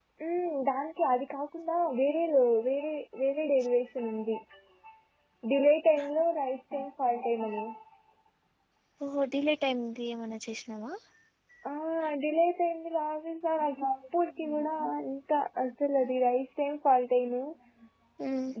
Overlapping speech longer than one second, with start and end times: none

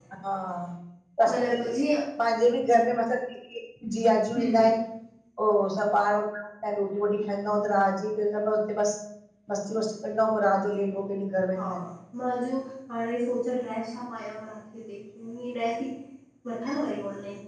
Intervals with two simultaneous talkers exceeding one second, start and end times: none

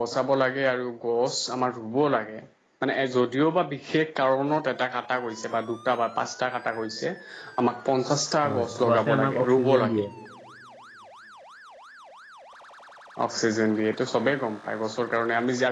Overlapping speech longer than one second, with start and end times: 8.4-10.0

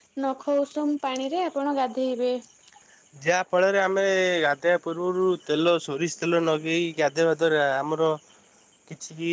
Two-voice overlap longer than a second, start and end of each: none

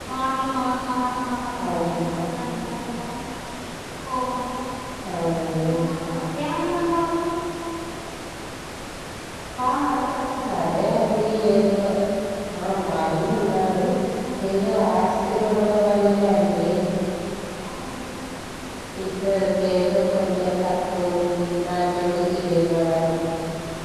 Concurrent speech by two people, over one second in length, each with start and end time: none

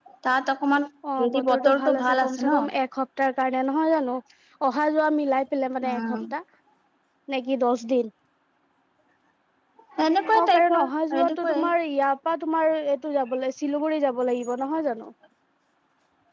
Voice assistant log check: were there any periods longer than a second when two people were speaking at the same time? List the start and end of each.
1.2-2.6, 10.4-11.6

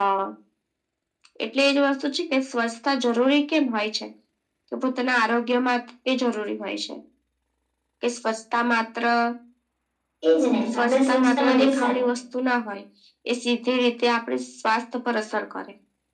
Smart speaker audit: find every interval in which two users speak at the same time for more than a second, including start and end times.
10.7-12.0

